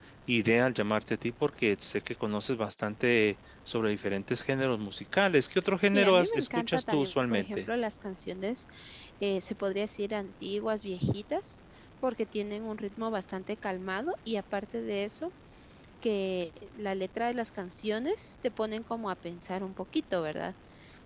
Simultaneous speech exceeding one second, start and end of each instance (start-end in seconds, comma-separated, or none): 5.9-7.7